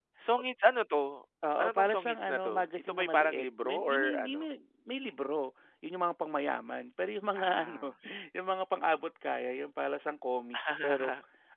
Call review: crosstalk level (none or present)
present